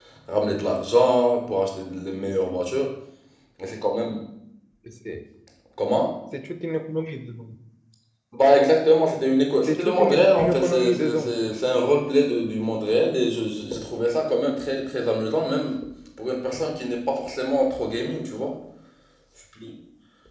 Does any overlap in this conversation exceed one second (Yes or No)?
Yes